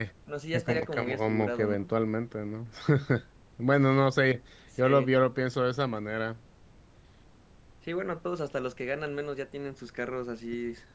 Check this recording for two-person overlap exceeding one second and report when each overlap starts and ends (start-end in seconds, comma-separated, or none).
0.5-1.8